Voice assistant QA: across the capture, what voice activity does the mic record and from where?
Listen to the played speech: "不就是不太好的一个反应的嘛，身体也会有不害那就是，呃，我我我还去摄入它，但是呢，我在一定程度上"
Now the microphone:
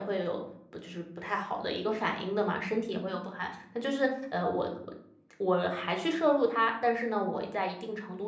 echo only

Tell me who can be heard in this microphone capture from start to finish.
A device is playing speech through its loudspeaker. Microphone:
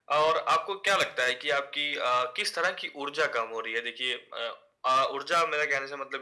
echo only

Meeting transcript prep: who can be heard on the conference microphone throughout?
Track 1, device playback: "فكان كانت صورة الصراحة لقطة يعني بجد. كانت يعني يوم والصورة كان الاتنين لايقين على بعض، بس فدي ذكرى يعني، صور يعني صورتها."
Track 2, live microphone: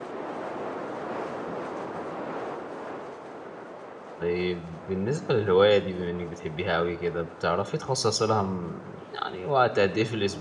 user only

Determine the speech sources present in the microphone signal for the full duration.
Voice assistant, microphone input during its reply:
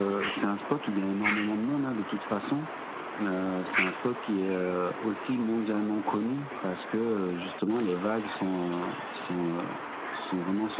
echo only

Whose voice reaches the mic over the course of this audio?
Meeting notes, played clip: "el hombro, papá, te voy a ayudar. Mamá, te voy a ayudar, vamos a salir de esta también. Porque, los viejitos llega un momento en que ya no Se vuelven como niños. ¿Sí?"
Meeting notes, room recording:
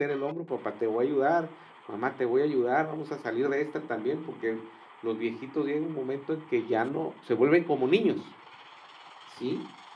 echo only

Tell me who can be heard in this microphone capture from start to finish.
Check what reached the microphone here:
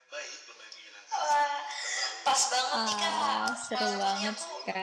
both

